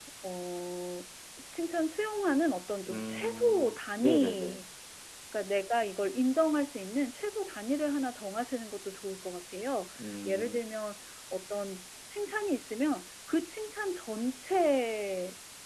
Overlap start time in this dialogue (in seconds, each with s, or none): 2.9 s